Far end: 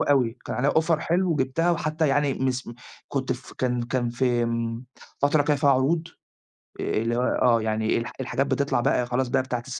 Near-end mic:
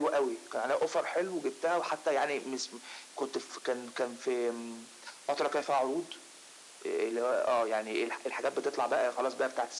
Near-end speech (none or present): none